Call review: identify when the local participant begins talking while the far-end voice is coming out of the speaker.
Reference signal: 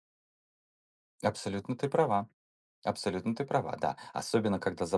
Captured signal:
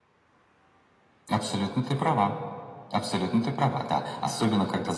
none

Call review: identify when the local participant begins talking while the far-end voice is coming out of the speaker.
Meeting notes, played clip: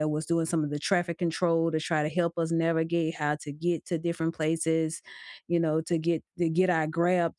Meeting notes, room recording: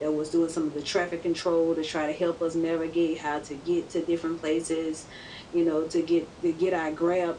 none

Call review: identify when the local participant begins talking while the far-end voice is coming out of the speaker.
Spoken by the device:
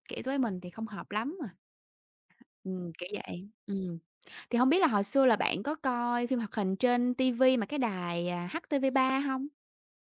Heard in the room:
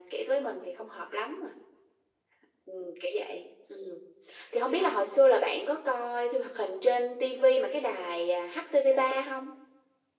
none

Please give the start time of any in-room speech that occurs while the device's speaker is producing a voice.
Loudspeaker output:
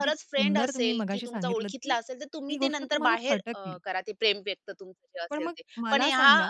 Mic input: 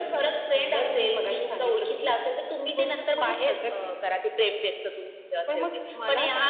none

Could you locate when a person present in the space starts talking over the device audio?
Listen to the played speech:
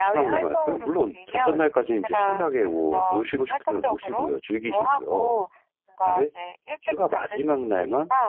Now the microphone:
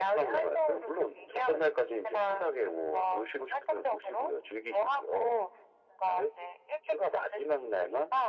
none

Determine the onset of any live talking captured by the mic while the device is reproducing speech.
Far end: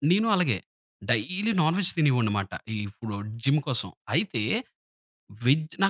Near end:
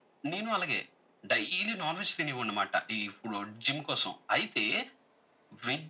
none

